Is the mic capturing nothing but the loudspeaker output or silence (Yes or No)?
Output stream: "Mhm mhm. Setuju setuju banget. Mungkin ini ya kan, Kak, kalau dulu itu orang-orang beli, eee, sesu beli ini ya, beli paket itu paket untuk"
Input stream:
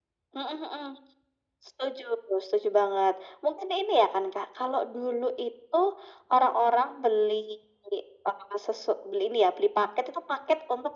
Yes